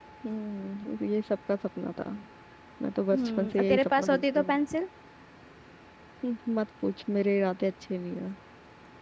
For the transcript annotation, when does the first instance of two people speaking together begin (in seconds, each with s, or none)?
3.1 s